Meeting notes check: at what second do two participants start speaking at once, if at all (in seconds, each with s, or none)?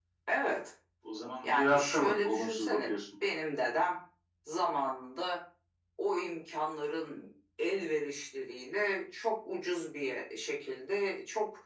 1.4 s